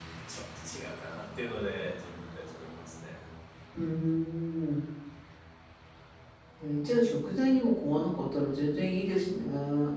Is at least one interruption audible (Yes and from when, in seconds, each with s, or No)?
No